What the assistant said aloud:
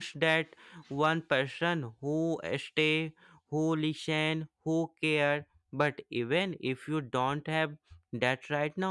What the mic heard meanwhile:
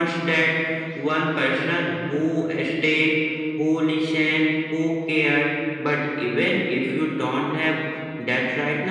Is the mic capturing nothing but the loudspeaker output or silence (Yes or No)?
Yes